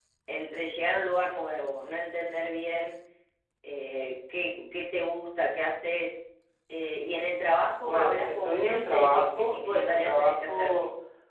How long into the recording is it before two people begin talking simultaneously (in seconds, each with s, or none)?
7.8 s